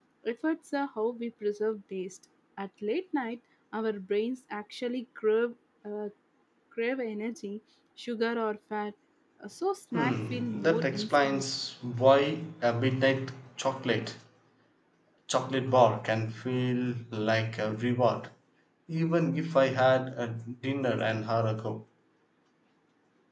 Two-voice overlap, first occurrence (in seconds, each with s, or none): 9.9 s